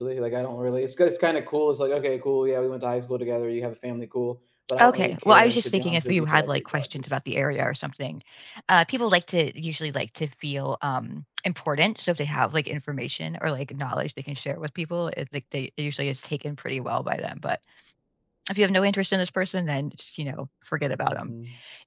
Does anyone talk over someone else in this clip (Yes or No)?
Yes